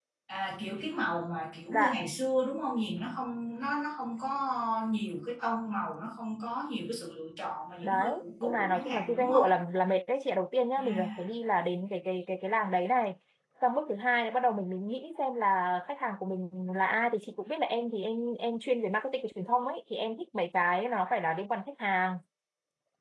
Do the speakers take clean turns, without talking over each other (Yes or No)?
No